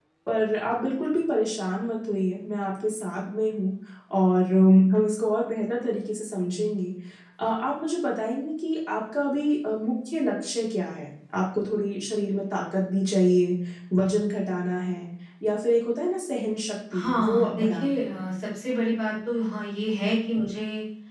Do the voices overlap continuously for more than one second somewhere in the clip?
Yes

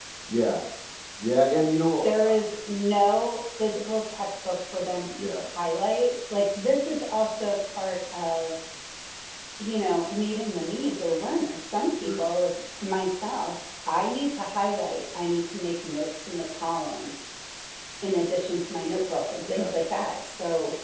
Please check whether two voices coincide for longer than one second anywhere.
No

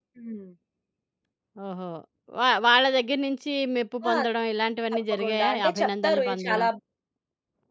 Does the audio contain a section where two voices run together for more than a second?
Yes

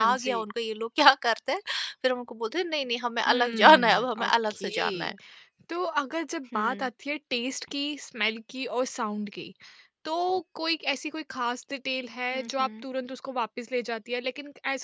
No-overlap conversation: No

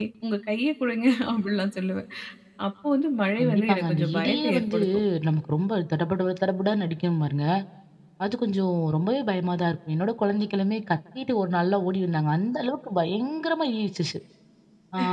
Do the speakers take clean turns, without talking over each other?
No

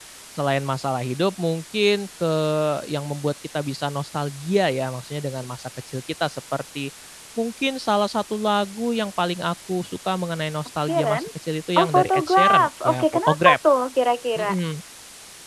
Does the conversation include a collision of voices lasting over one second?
Yes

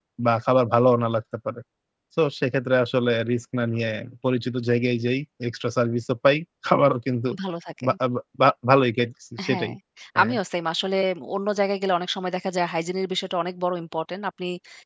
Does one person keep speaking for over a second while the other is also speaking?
No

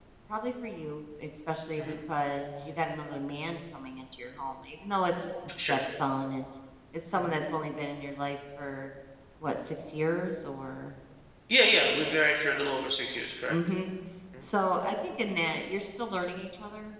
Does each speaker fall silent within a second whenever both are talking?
Yes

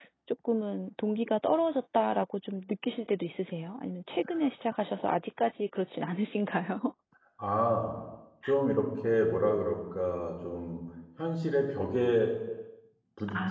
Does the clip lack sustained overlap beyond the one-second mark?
Yes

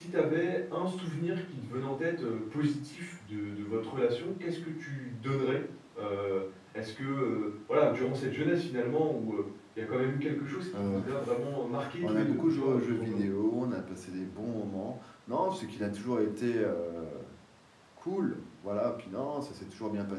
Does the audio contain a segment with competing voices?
Yes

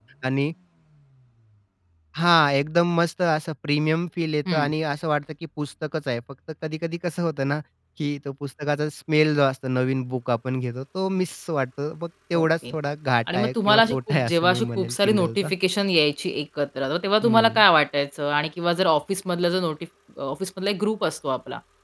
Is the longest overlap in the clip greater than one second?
Yes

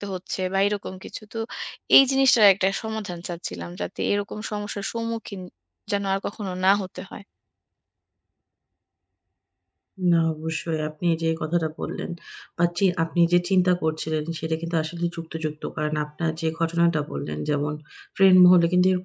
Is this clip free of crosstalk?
Yes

